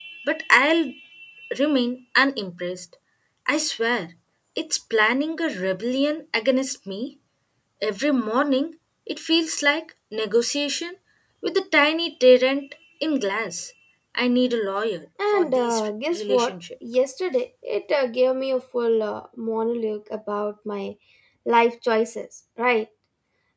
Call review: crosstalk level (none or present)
present